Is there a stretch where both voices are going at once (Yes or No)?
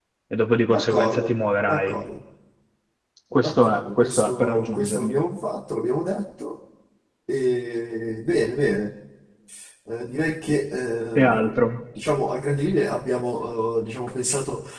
Yes